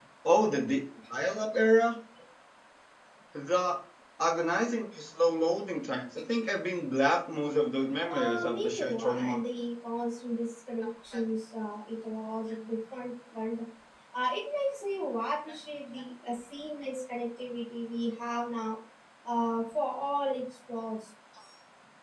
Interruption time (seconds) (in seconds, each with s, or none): 8.1 s